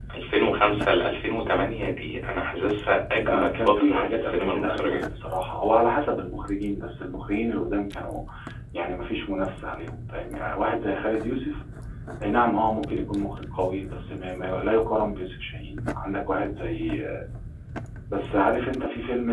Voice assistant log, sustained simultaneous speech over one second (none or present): present